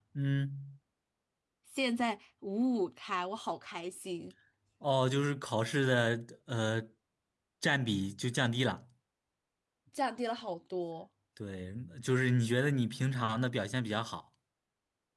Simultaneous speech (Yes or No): No